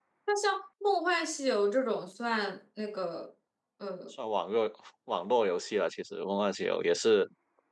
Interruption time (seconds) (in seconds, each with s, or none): none